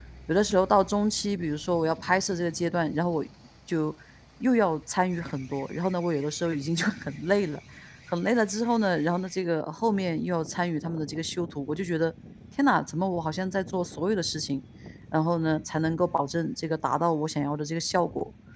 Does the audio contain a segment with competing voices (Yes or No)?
No